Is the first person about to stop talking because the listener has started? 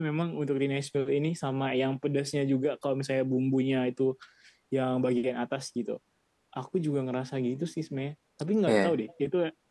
No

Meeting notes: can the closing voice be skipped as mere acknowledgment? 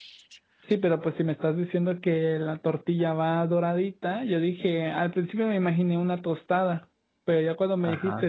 Yes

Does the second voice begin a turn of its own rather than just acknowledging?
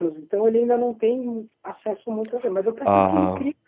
No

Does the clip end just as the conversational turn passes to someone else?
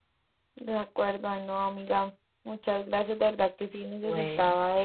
No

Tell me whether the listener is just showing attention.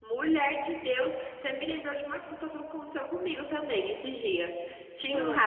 Yes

